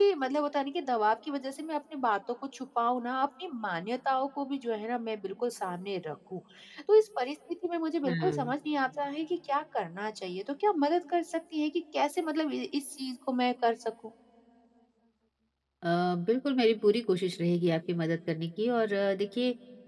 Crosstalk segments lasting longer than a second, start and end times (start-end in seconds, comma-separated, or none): none